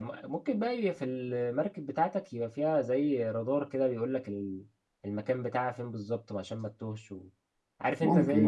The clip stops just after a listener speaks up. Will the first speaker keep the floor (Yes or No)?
Yes